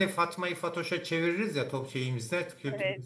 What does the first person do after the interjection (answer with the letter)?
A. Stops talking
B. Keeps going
B